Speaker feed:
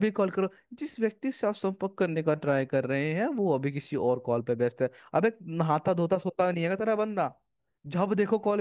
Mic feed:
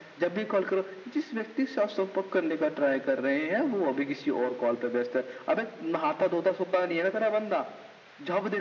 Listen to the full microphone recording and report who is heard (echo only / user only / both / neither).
echo only